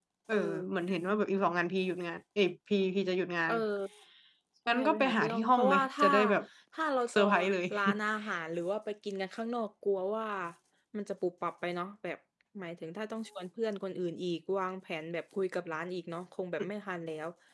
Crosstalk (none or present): present